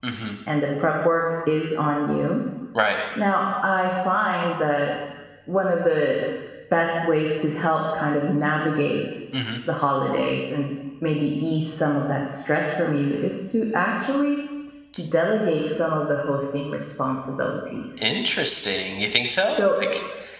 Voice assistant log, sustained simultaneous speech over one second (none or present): none